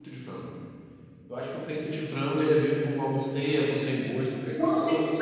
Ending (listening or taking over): taking over